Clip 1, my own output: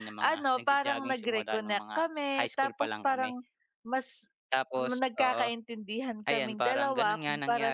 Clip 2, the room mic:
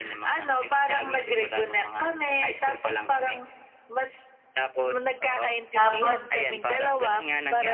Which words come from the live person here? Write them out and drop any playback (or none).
Tapos